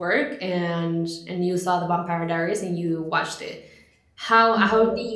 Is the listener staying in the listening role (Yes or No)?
Yes